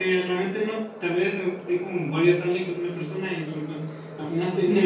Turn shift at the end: Yes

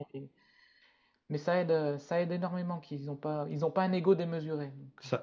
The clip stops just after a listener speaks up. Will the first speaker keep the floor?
No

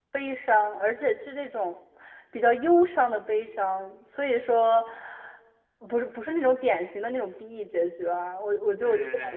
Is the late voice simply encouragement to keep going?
No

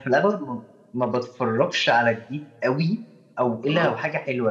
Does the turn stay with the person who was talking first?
Yes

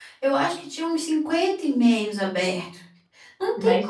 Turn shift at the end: Yes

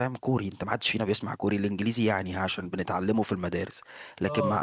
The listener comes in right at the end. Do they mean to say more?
No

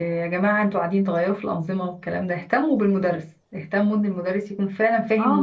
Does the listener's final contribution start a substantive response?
Yes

